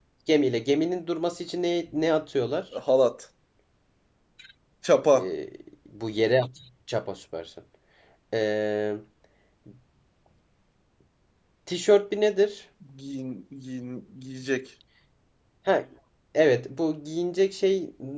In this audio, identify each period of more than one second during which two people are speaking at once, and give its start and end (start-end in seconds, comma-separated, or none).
none